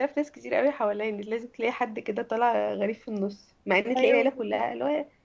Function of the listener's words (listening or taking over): listening